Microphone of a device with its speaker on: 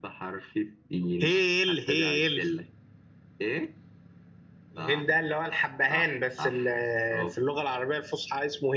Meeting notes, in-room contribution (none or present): none